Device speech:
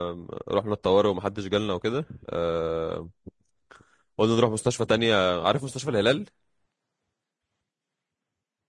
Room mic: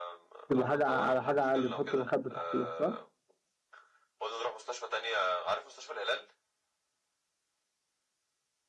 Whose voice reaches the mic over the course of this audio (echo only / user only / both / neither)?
both